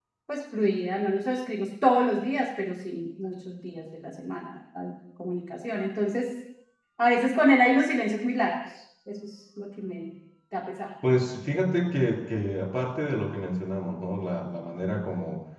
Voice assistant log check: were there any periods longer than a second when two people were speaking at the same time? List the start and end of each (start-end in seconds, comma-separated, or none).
none